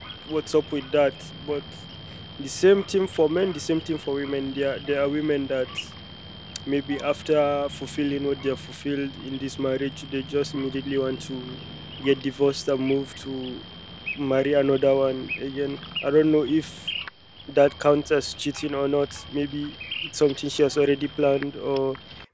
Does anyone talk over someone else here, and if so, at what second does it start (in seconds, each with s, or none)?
none